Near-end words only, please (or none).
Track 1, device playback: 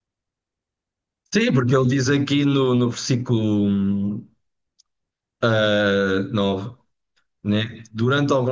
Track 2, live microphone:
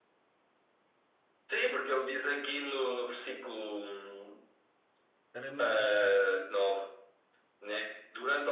era muito rígida.